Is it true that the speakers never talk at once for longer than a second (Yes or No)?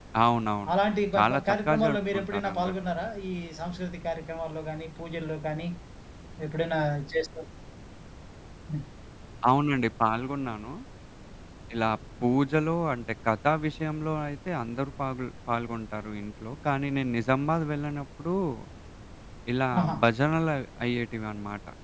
No